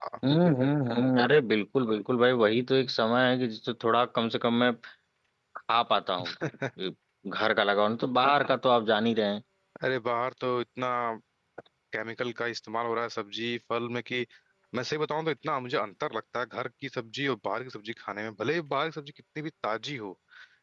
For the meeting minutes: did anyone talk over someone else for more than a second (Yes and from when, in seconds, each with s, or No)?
No